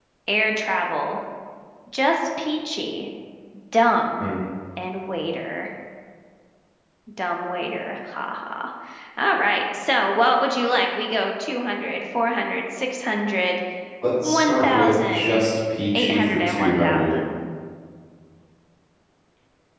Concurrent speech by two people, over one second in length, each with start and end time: 14.2-15.4, 15.9-17.1

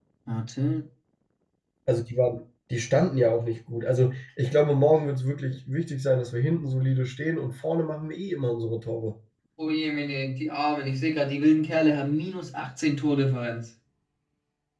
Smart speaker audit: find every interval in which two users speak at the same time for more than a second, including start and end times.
none

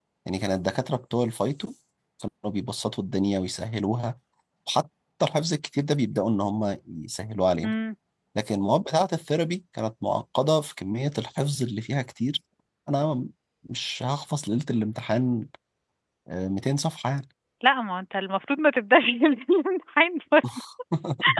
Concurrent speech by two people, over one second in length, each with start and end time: none

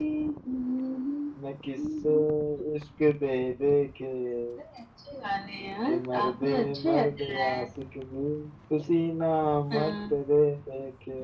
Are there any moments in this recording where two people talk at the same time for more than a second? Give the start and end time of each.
5.8-7.6

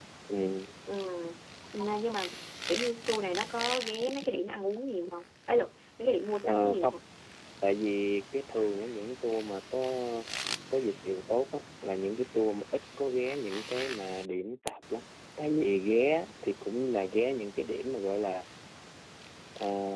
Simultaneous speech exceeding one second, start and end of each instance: none

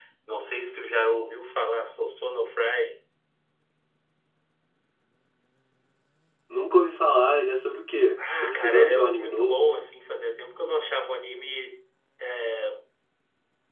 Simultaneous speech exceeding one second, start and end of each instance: 8.4-9.7

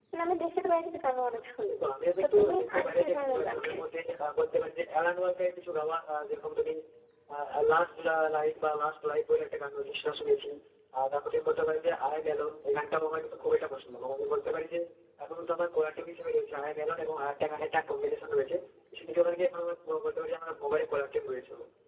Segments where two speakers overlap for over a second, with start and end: 2.2-3.8

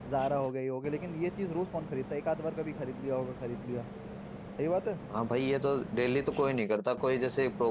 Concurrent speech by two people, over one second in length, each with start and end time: none

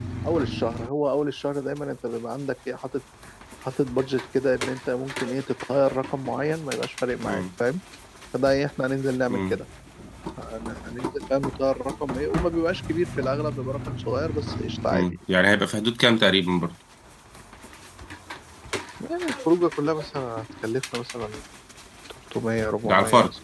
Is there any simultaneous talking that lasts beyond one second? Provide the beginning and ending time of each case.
none

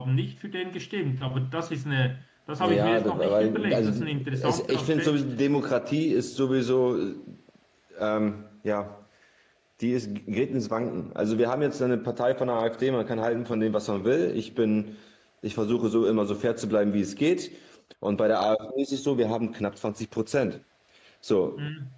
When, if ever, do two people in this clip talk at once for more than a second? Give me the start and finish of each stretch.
2.6-5.2

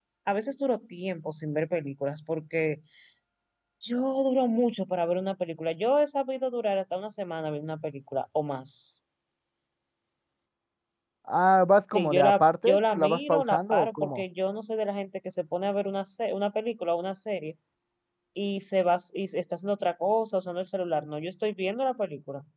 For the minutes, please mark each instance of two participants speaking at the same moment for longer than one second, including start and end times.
11.9-14.2

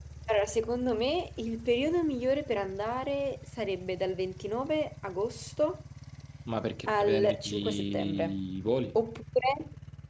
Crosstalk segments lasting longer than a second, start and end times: 6.9-8.4

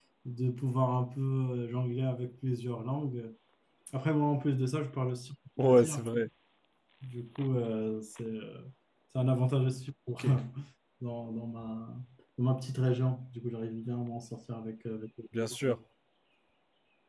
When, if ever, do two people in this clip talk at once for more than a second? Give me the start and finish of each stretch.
none

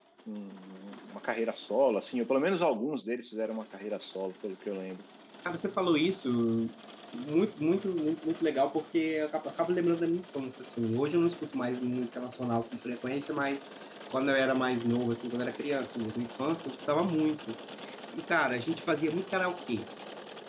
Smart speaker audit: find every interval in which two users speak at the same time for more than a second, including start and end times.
none

